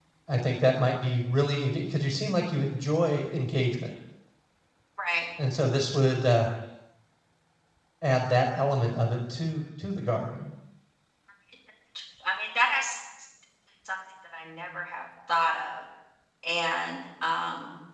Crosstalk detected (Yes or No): No